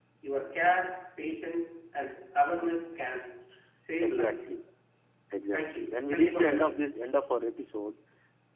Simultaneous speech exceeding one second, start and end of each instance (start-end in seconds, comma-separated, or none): 5.5-6.8